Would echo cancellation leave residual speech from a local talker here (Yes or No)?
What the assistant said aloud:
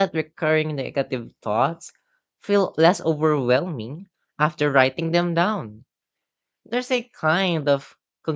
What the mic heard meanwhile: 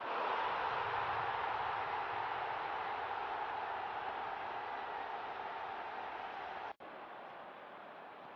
No